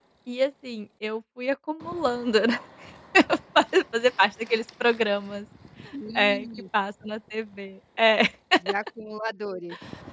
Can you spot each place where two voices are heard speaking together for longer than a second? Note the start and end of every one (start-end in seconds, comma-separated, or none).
none